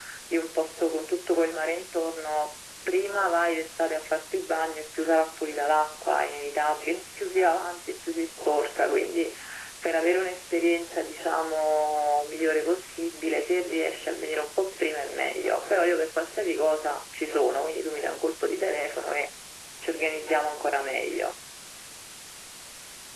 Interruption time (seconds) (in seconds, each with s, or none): none